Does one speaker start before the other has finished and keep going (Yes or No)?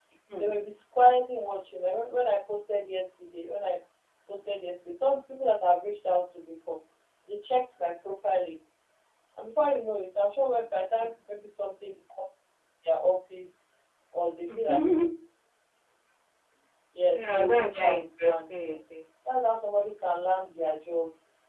Yes